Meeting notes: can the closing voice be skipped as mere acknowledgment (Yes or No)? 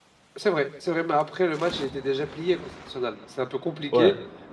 Yes